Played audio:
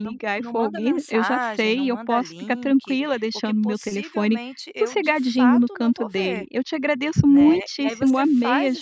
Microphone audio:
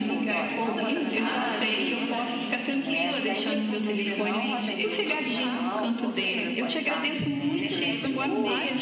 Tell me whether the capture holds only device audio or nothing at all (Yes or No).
No